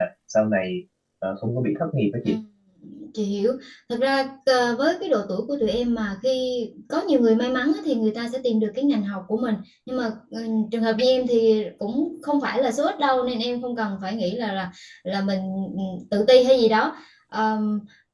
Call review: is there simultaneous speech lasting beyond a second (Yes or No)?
No